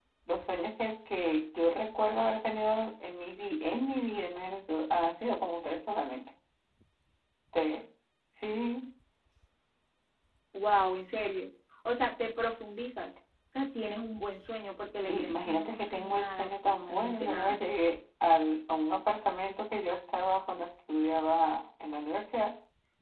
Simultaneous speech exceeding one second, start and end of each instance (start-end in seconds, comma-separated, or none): 15.1-17.6